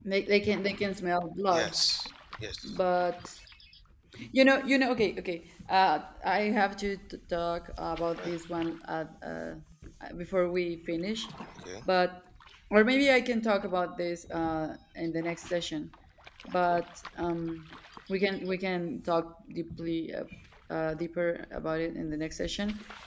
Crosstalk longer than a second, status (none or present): none